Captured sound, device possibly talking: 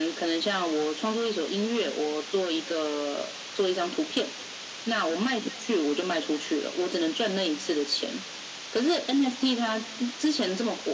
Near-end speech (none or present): none